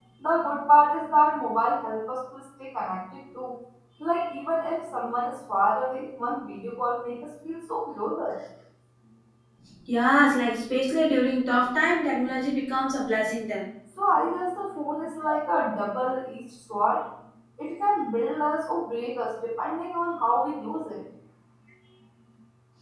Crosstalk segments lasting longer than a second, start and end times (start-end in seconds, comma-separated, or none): none